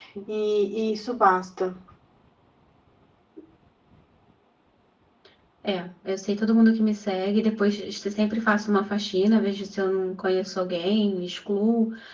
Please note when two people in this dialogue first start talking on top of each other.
none

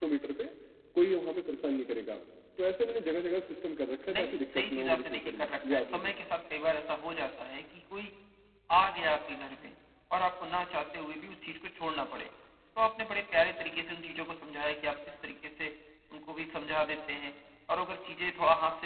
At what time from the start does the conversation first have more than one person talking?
4.1 s

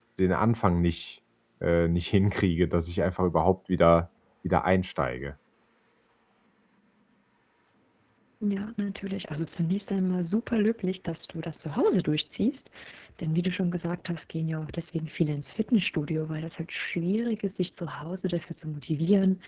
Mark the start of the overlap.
none

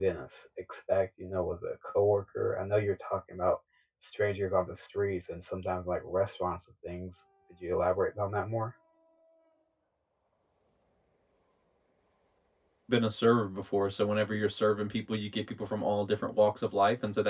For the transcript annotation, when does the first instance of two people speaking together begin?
none

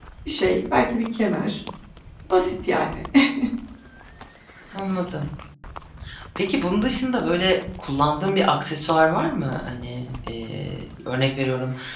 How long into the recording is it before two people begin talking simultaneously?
none

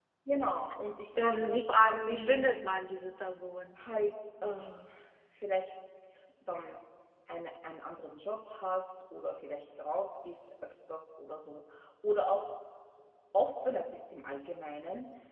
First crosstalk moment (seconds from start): 1.1 s

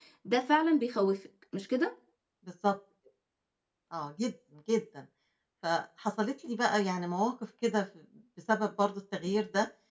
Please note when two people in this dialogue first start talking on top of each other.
none

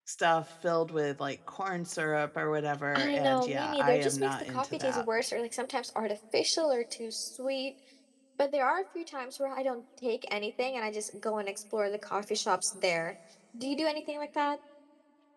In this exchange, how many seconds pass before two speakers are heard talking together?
2.9 s

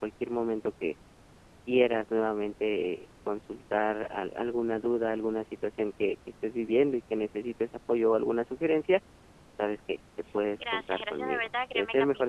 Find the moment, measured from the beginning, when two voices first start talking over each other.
10.6 s

